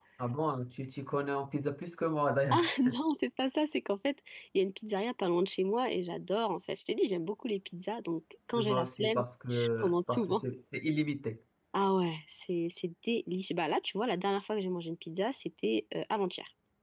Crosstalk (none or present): present